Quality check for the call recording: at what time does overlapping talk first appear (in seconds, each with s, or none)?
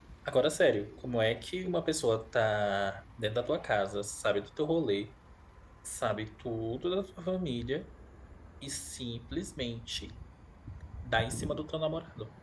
none